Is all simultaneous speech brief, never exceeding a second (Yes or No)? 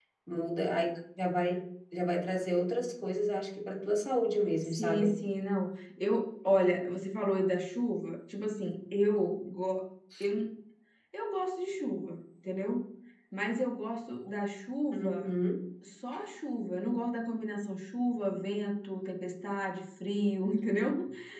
Yes